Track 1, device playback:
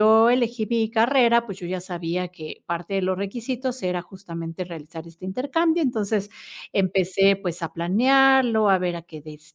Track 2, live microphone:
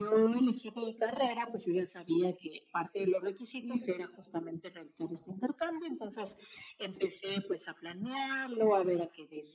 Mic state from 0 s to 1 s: echo only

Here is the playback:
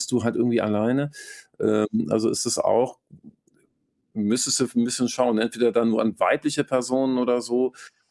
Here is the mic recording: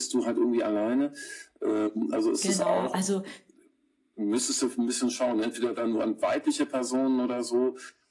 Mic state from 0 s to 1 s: echo only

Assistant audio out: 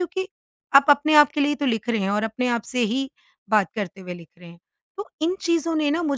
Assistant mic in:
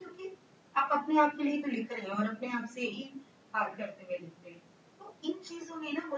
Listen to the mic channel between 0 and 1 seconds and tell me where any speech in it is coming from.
echo only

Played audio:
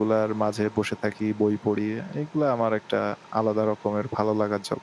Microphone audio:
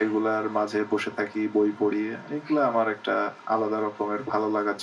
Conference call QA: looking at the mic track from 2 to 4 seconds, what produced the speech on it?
echo only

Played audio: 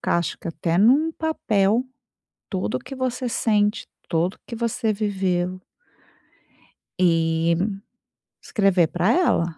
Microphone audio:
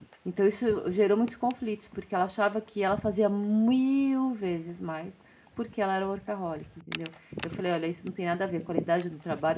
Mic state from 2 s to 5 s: user only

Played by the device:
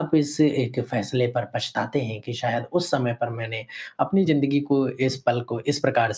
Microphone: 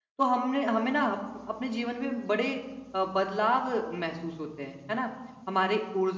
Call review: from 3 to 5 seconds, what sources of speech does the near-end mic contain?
user only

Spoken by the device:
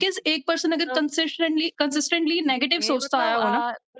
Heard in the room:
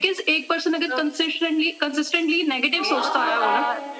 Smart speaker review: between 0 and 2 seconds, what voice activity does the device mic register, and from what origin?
echo only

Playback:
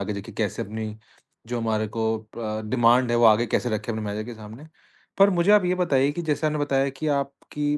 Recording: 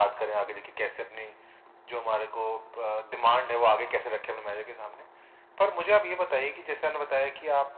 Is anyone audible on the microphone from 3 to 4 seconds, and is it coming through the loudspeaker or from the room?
echo only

